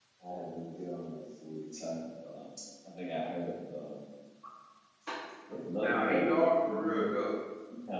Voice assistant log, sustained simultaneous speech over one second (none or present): present